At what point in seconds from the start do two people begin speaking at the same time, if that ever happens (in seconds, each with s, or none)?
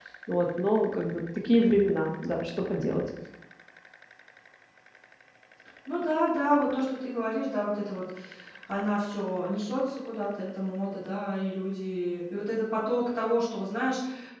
none